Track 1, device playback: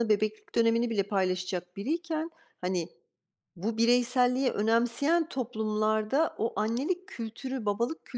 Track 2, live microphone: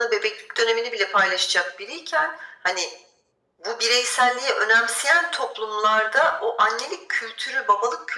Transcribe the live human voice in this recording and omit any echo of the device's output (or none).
none